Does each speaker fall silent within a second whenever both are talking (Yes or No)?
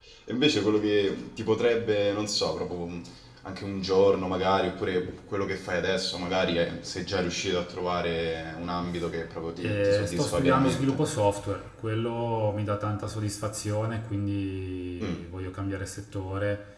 No